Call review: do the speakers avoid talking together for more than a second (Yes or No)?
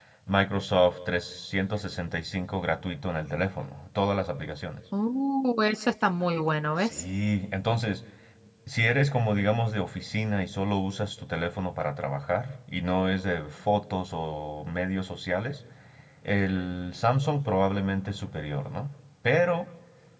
Yes